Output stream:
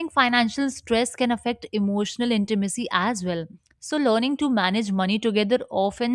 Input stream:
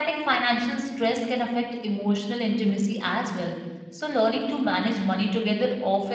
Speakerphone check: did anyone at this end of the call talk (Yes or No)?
No